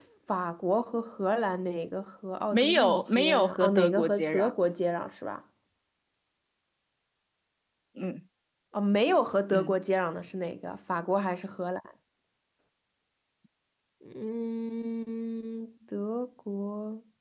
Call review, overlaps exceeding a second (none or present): present